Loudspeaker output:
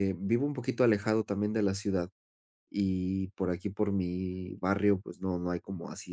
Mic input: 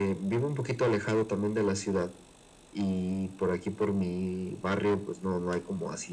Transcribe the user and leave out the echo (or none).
none